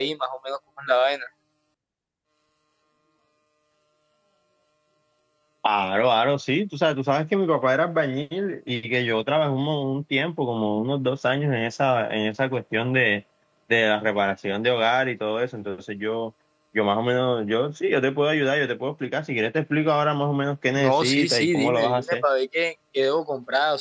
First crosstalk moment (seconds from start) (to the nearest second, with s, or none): 21 s